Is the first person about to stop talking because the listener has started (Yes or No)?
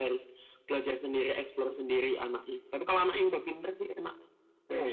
Yes